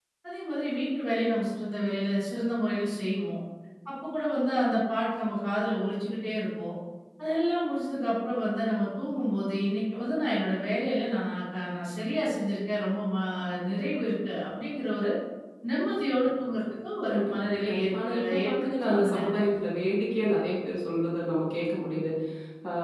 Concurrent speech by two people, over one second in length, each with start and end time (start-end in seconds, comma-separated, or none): 17.1-19.6